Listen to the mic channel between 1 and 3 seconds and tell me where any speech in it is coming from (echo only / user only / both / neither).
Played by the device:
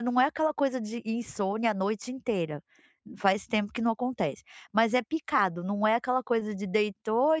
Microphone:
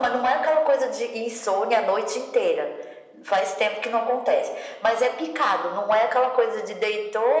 echo only